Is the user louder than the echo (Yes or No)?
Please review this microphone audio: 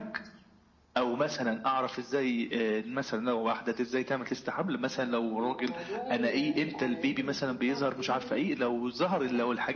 No